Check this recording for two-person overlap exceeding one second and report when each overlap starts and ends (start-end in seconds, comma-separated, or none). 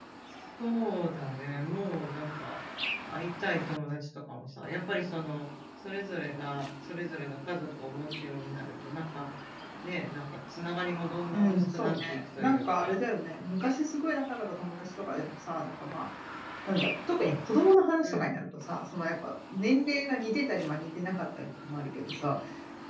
11.3-13.0